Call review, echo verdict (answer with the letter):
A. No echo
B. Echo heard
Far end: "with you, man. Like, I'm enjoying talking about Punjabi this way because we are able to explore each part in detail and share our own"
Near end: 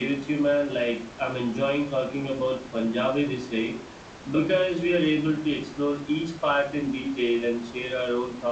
B